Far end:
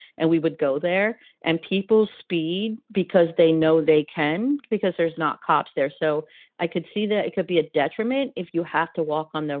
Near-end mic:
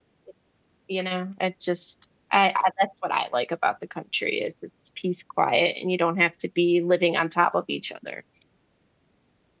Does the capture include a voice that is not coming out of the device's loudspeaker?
Yes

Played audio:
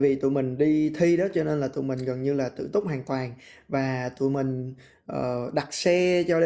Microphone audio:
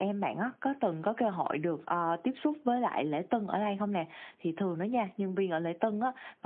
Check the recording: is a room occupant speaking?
Yes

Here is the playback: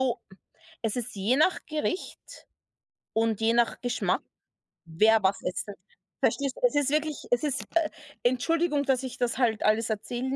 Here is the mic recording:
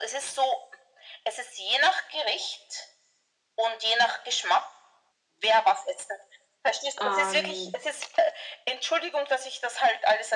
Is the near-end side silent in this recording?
No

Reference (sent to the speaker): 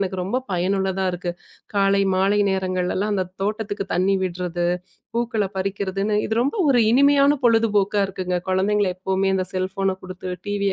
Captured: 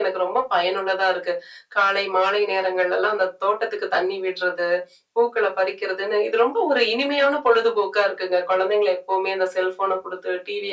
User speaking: No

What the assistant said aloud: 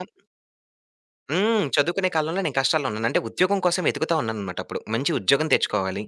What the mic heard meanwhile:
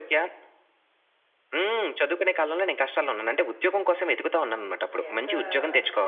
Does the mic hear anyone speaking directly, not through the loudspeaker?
Yes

